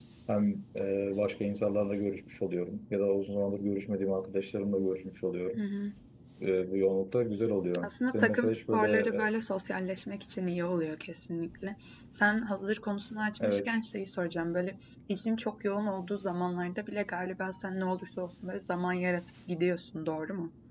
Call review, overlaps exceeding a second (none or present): present